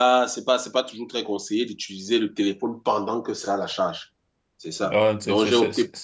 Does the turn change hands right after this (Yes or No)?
Yes